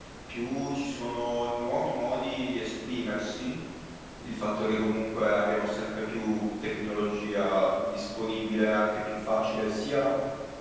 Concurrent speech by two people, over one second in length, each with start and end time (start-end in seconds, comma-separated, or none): none